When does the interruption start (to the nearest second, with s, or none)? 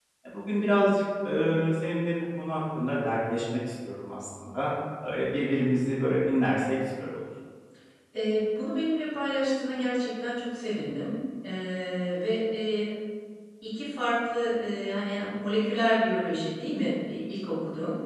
none